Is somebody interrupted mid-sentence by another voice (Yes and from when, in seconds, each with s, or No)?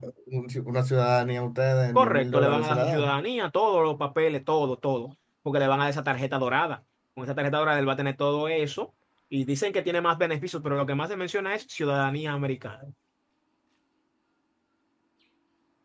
Yes, from 2.0 s